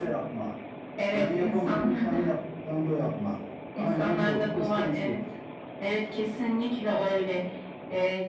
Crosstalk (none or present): present